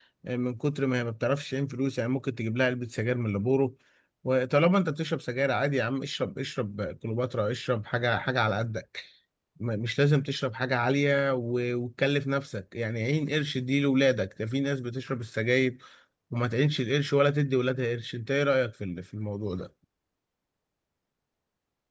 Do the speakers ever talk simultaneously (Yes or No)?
No